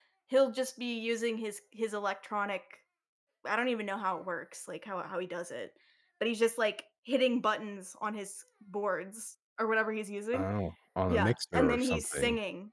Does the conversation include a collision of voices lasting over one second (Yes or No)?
Yes